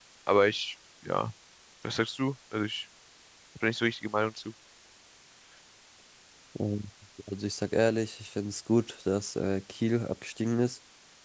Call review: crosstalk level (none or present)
none